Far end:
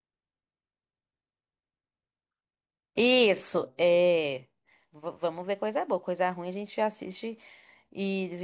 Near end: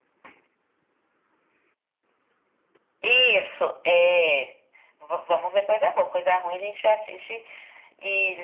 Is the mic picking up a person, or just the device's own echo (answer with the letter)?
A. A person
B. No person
B